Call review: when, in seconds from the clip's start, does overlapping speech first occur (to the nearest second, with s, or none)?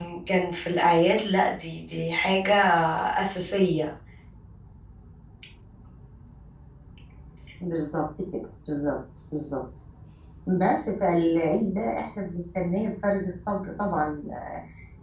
none